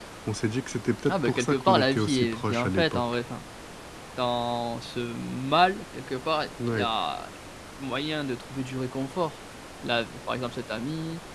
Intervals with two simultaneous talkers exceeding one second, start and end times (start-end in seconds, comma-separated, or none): 1.1-3.0